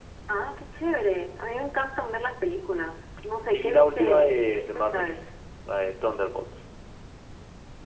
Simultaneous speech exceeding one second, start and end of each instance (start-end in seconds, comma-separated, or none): 3.4-5.2